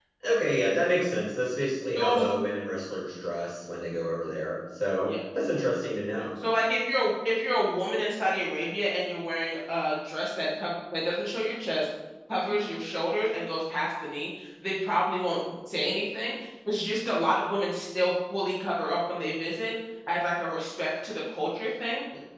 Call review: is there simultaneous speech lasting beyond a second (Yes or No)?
No